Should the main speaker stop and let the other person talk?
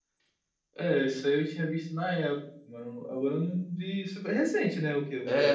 Yes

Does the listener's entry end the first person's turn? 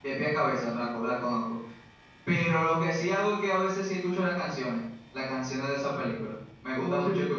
Yes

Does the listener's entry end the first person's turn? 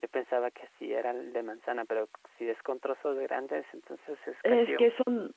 Yes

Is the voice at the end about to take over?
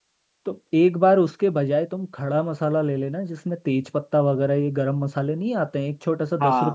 Yes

